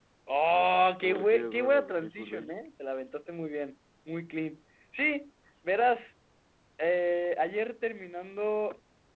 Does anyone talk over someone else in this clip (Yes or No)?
Yes